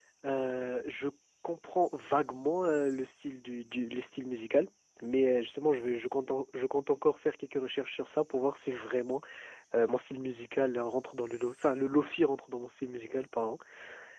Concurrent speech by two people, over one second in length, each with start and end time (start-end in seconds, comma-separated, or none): none